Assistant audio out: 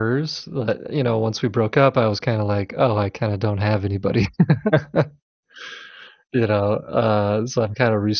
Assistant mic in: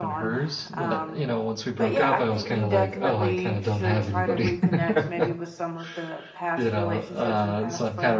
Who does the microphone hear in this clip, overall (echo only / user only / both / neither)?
both